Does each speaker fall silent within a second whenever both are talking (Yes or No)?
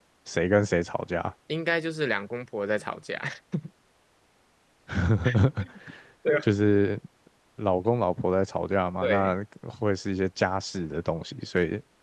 Yes